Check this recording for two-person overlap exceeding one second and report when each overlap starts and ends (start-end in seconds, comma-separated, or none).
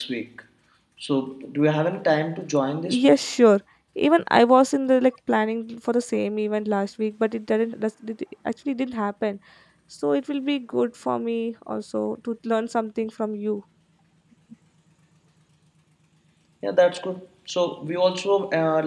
none